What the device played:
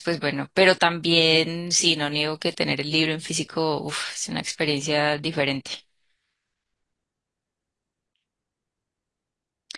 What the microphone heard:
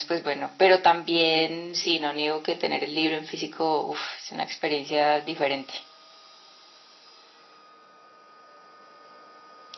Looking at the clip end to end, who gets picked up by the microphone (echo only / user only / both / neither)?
echo only